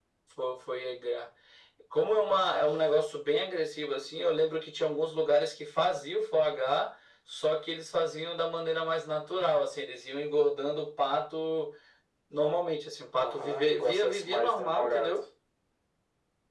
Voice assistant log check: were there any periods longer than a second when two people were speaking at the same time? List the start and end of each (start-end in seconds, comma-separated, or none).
13.2-15.2